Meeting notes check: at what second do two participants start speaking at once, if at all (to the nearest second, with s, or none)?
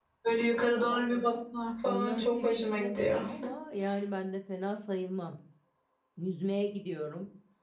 2 s